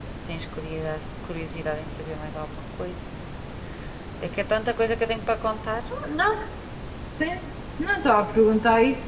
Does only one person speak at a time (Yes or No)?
Yes